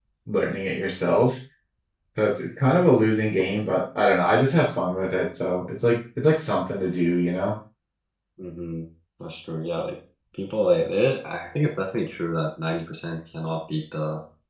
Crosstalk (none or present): none